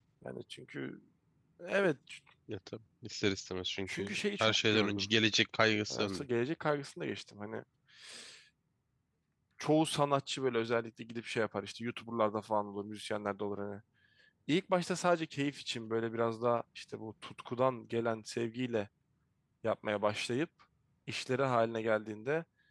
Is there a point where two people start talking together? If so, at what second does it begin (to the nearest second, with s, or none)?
4 s